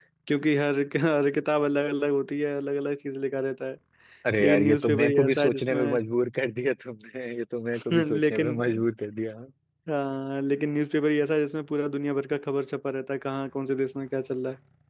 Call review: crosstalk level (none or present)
present